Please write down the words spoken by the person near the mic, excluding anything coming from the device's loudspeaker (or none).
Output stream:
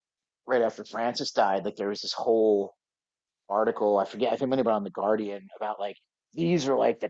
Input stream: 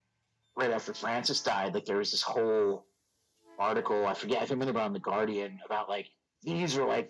none